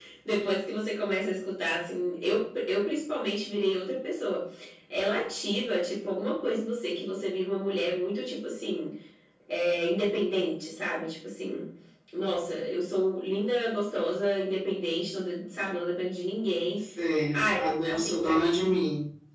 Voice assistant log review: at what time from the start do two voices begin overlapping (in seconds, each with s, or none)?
17.3 s